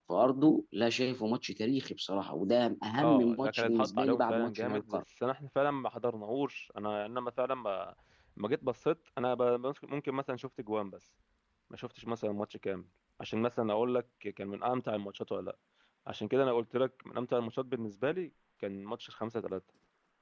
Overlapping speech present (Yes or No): Yes